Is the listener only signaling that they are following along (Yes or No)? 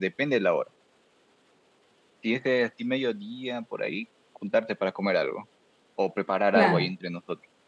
Yes